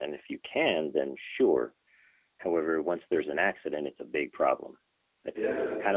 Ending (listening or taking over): listening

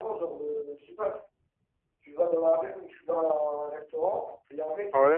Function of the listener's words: listening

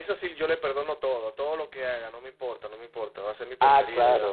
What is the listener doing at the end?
listening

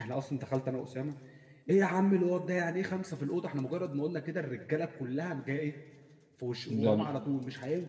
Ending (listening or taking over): listening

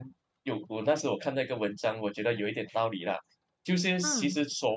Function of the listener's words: listening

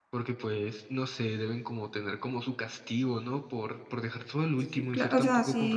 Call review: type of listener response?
taking over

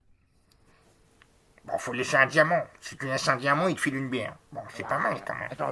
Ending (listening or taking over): taking over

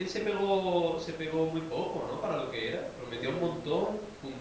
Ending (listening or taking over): listening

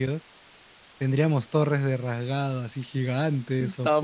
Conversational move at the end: taking over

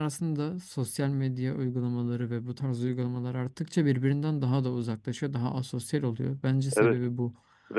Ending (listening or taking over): taking over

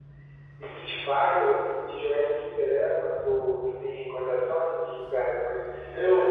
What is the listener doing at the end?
taking over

